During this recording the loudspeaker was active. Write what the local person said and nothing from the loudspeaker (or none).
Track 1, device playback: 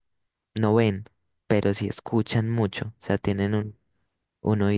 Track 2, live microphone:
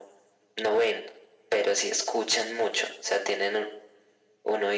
none